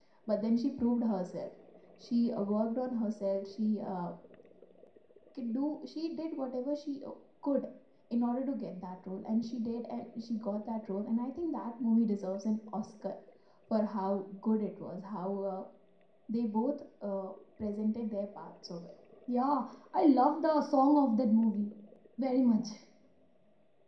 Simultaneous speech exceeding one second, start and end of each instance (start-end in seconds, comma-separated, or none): none